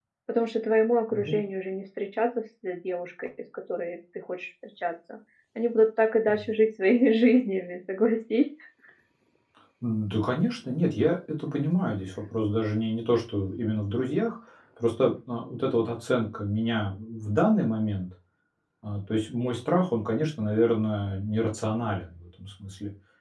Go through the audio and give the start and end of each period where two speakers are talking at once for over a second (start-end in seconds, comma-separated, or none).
none